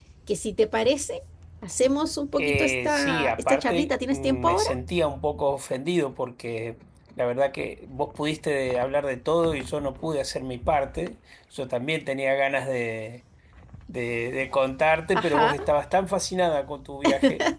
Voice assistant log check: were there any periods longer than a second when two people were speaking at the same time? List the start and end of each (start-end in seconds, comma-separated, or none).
2.4-4.8